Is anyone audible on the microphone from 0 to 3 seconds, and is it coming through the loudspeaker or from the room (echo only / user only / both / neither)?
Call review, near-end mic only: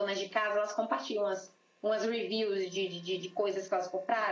echo only